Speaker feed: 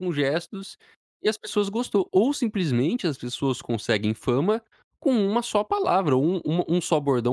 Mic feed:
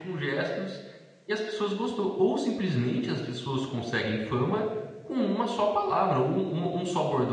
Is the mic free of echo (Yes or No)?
No